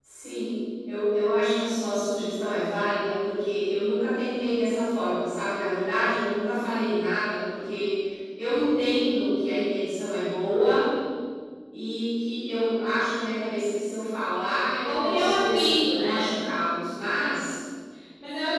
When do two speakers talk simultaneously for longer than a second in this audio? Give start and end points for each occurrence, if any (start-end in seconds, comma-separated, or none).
14.8-16.3